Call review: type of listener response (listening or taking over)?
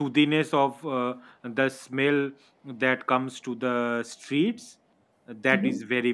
listening